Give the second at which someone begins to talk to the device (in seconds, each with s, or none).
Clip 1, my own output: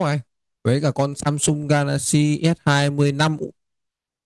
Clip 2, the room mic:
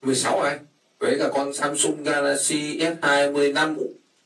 none